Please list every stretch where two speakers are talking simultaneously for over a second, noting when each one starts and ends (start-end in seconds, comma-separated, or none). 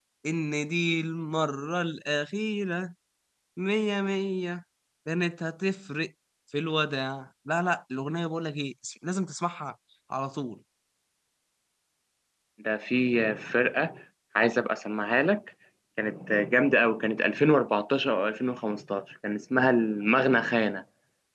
none